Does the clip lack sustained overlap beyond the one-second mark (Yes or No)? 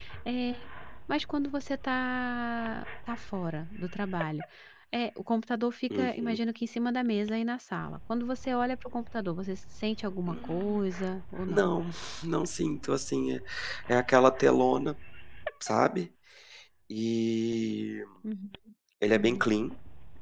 Yes